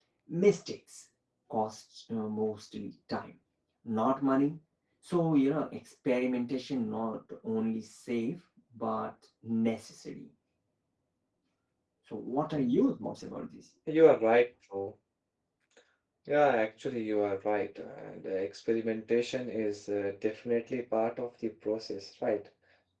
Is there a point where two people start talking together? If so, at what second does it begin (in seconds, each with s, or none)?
none